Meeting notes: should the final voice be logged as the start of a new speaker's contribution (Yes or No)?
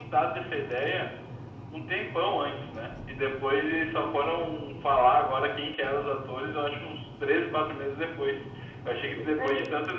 No